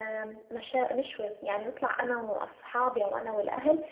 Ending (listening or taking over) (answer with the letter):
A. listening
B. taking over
A